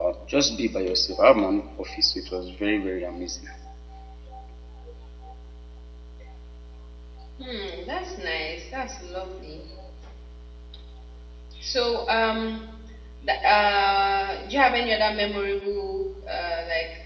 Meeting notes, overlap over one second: none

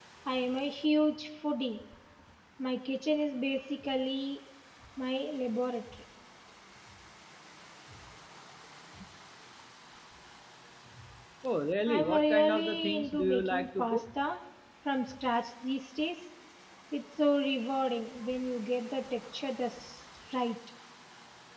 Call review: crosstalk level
present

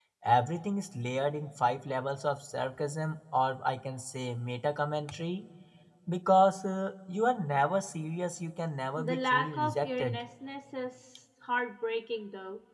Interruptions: present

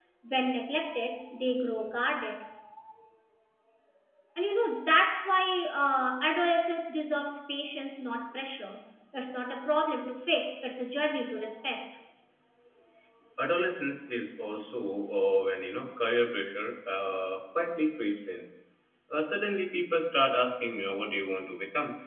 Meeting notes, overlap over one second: none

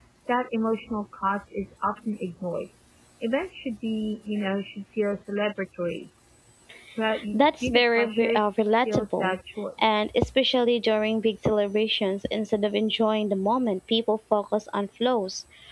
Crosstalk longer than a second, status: present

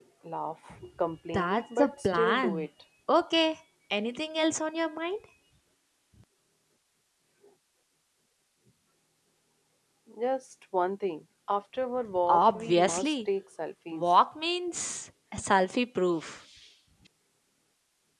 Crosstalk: present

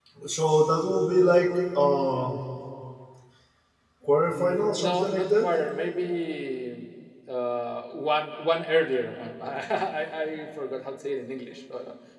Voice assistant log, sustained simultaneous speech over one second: present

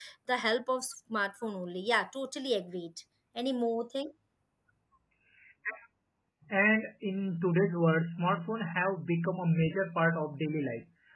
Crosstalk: none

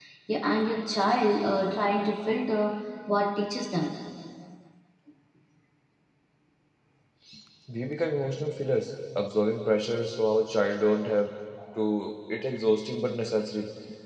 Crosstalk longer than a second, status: none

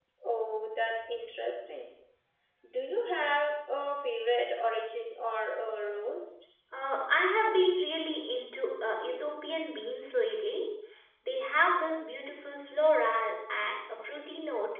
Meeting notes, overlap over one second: none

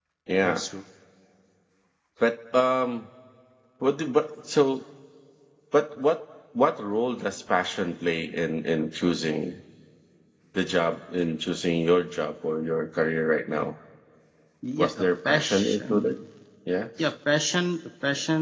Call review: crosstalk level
present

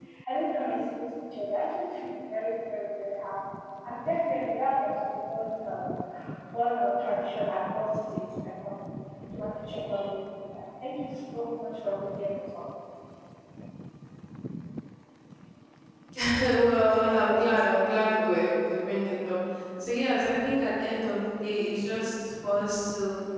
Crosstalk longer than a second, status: none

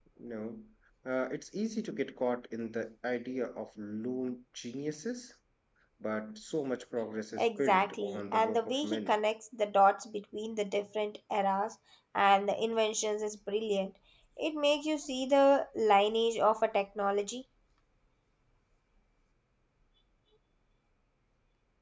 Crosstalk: present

